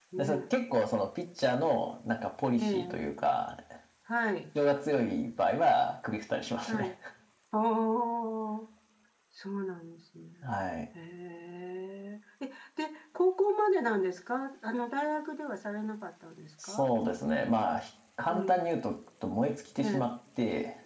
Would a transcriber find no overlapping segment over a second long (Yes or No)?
Yes